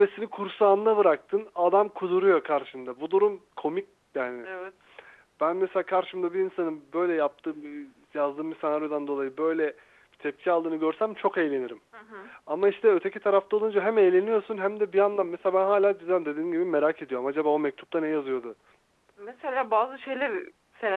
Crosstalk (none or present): none